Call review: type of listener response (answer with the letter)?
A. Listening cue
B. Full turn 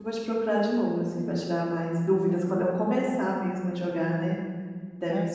B